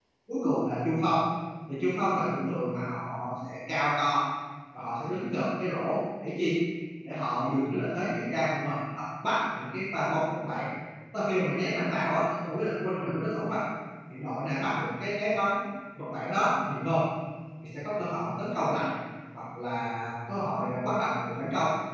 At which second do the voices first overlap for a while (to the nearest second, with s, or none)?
none